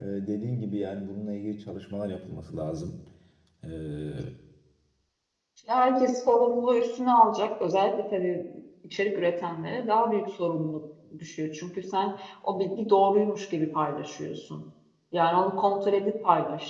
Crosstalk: none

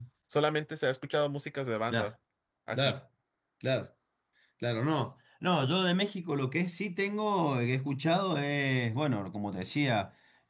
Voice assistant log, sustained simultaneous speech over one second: none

